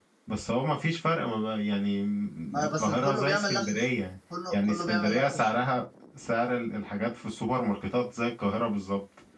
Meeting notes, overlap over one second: present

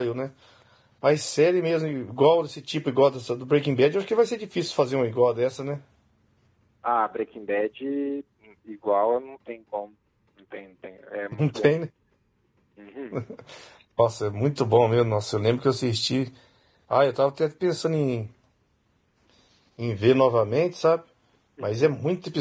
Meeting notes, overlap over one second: none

